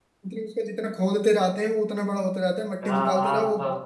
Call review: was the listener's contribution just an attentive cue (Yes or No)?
No